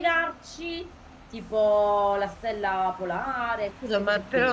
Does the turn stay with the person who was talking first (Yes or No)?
No